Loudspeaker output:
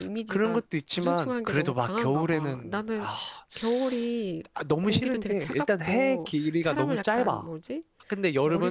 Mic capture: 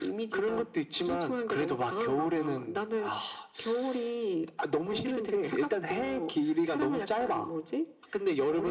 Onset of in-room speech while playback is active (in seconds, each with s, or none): none